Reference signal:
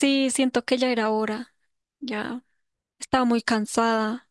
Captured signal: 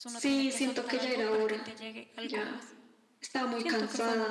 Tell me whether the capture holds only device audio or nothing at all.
No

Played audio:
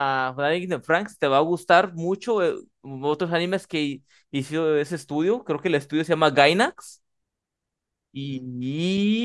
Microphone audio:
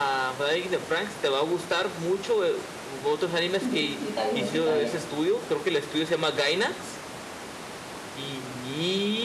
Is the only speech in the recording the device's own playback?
No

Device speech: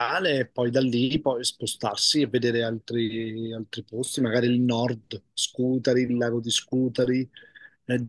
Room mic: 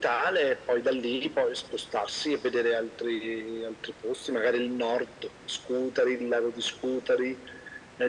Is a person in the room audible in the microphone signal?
No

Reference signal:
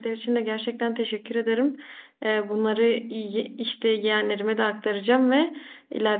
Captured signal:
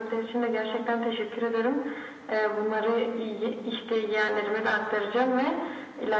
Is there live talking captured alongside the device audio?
No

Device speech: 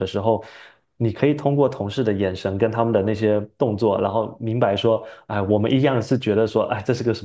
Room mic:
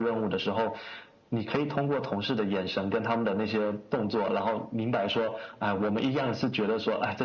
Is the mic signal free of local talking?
Yes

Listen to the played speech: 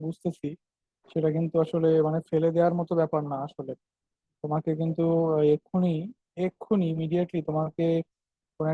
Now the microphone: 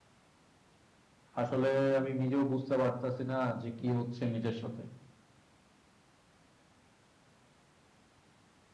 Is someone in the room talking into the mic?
Yes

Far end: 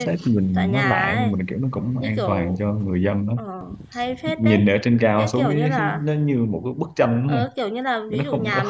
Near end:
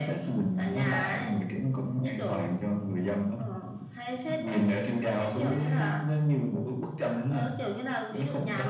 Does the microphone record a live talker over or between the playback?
No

